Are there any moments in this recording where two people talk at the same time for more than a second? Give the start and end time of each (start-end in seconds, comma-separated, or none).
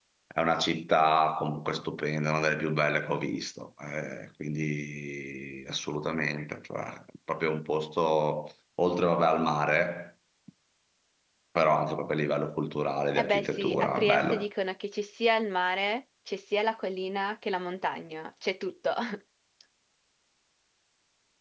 13.2-14.4